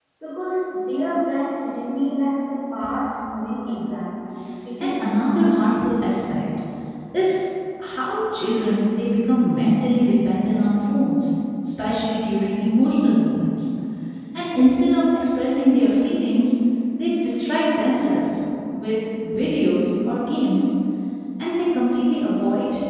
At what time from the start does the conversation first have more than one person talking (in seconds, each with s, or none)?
4.8 s